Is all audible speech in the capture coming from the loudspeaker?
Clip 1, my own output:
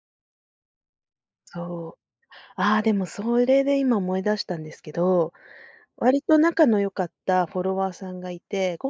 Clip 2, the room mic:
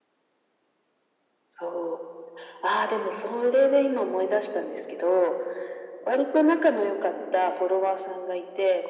Yes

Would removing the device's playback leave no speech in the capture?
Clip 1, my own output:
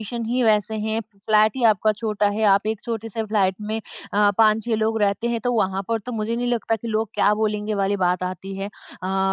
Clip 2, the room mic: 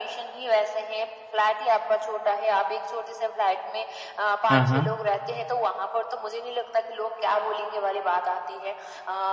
No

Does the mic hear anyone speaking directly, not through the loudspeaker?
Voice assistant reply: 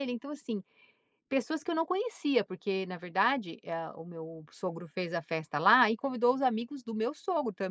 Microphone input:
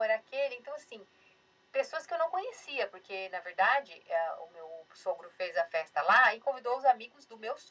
No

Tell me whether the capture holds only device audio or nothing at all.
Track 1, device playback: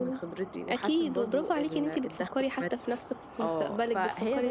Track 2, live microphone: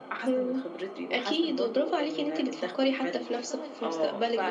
No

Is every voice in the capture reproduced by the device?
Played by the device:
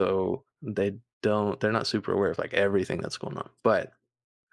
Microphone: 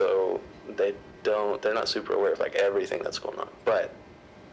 Yes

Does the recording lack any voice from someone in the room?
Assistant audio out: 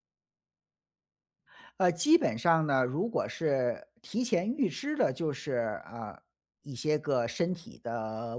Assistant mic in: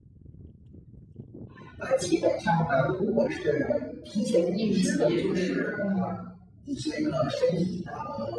No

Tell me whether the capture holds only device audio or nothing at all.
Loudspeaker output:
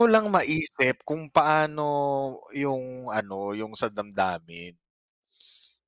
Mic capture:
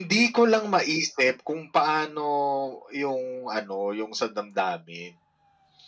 Yes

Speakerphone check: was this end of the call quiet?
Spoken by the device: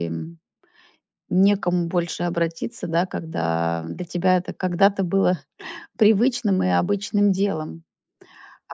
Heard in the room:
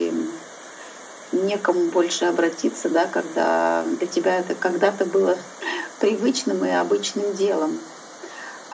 Yes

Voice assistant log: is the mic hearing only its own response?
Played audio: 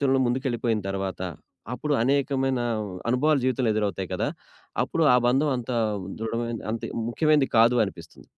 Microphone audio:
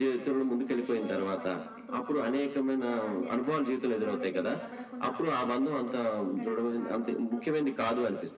No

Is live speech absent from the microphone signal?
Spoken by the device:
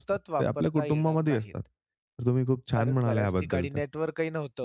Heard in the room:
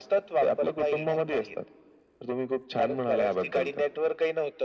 Yes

